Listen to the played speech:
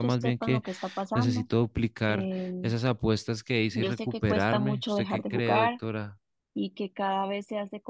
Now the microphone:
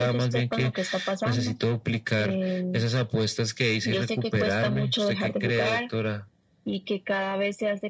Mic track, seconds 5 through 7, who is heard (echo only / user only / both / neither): echo only